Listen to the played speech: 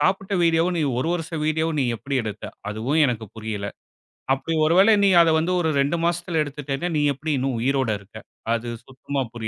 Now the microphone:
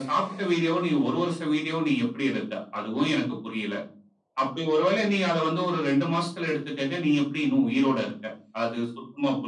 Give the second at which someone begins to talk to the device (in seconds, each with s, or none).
none